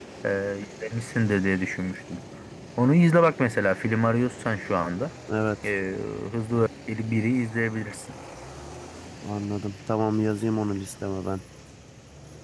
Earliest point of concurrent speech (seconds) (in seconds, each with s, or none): none